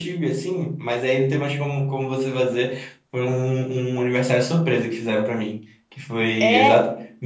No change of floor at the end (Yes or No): Yes